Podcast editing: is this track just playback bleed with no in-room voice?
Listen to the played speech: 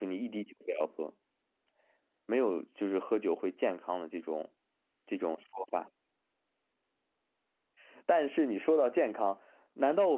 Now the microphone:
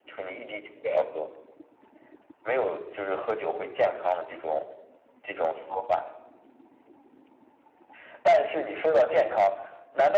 Yes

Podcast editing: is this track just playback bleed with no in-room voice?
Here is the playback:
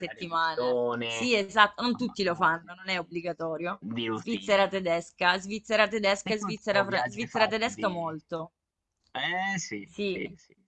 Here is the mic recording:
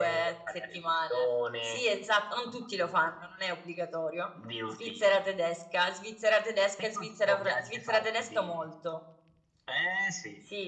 Yes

